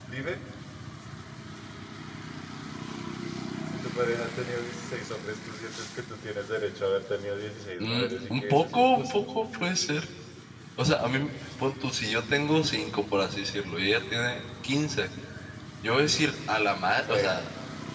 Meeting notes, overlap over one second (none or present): present